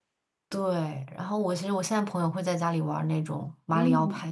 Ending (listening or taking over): taking over